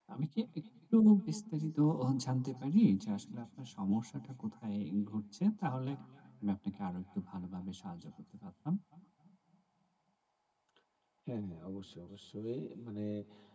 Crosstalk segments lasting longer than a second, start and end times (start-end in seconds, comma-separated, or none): none